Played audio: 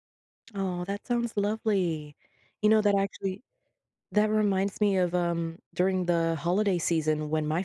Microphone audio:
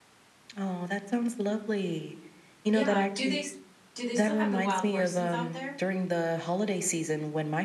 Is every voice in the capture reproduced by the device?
No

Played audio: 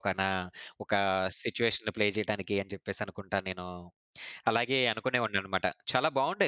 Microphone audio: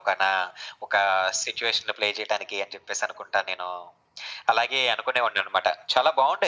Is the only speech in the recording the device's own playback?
Yes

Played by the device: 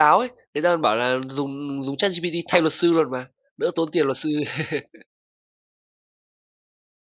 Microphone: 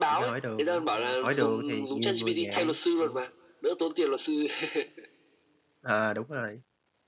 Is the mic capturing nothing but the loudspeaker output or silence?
No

